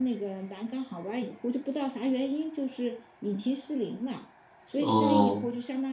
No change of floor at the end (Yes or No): Yes